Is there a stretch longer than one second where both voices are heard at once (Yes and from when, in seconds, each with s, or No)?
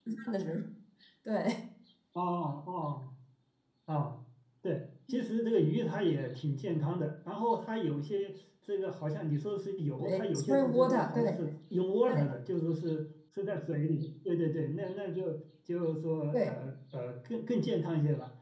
Yes, from 10.0 s